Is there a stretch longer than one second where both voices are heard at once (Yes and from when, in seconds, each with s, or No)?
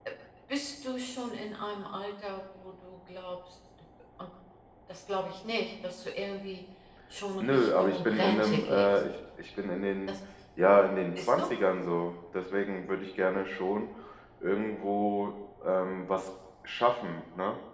Yes, from 7.4 s